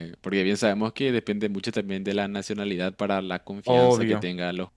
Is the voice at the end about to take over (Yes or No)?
No